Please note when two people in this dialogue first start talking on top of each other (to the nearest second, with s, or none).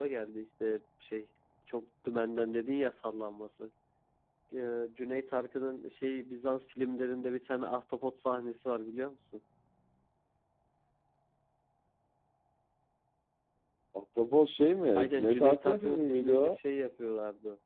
15 s